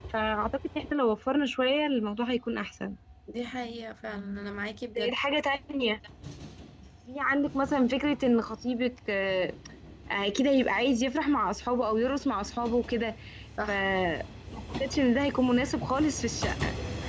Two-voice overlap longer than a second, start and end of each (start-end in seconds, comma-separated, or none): none